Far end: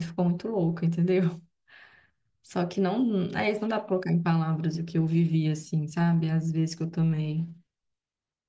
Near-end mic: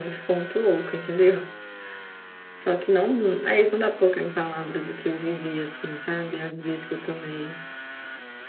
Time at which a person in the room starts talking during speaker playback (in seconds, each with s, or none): none